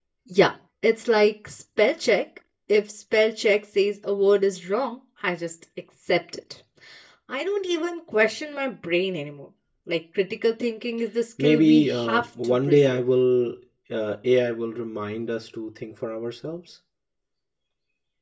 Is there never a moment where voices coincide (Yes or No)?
No